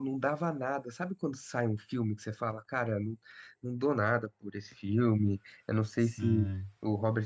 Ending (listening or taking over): listening